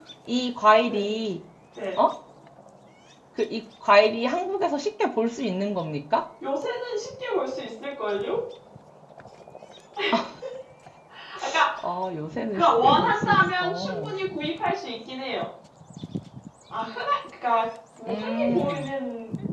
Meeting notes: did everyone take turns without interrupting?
No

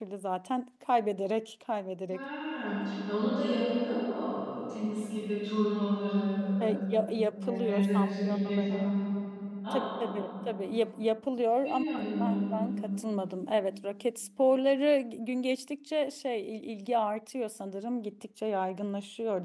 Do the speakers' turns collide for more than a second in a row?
Yes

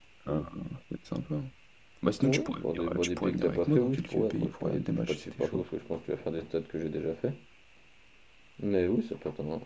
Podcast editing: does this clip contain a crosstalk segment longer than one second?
Yes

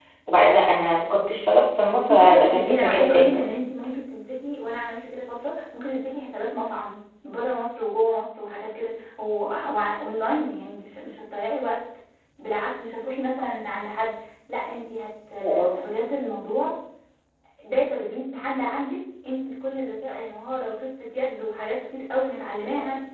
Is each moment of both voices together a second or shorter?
No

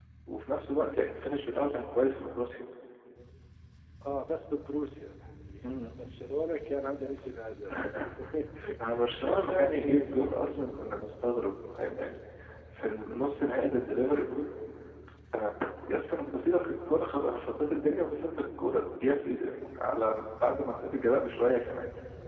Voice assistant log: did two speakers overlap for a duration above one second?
Yes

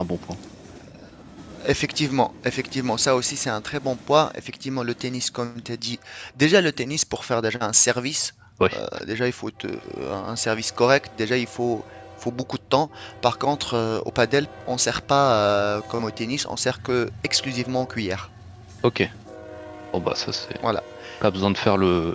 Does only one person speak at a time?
Yes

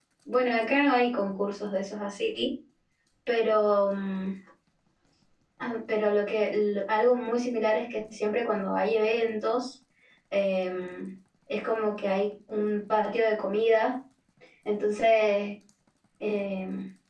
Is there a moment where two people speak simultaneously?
No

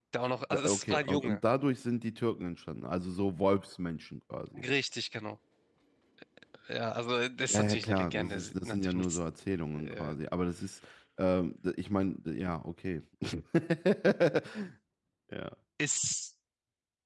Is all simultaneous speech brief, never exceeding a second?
No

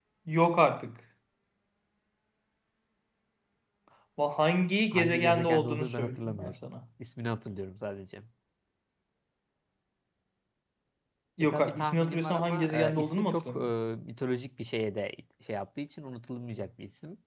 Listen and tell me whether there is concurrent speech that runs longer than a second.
Yes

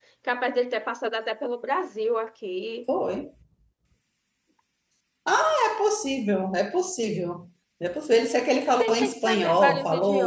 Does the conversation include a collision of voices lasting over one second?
Yes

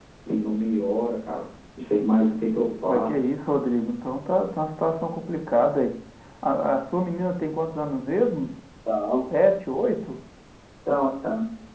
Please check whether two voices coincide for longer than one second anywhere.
No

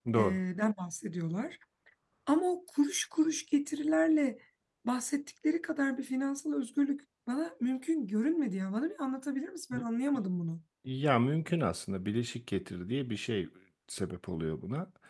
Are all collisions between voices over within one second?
Yes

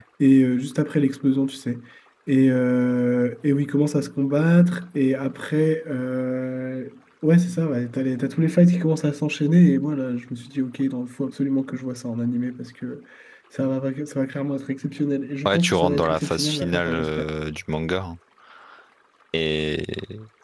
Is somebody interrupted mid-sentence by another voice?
Yes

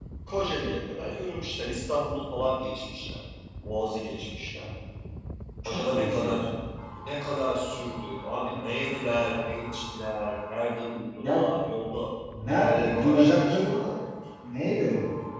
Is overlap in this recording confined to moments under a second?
No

